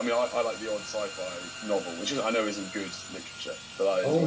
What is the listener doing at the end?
taking over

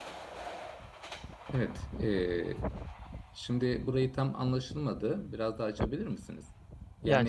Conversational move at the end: taking over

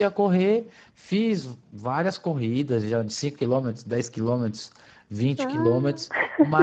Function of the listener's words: listening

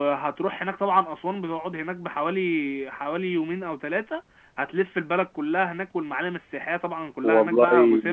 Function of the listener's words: listening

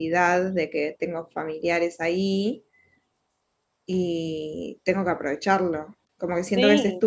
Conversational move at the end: listening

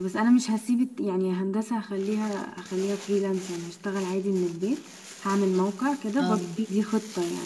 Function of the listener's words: listening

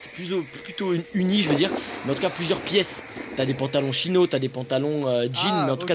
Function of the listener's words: listening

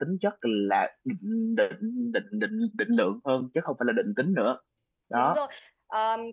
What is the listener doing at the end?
taking over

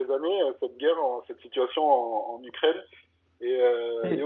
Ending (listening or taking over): taking over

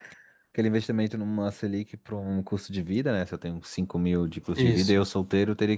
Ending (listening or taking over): listening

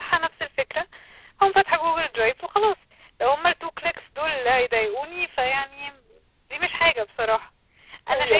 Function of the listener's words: taking over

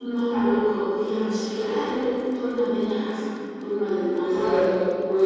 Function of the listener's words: taking over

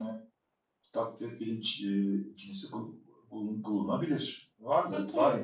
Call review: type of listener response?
taking over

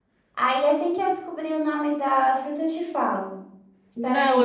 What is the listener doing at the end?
taking over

